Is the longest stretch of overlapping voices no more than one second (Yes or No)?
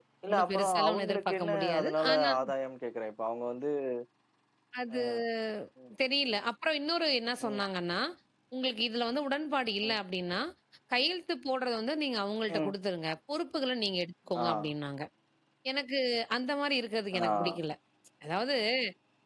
No